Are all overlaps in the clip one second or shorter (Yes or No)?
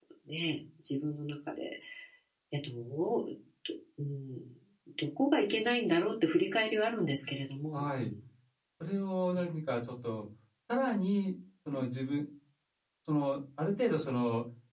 Yes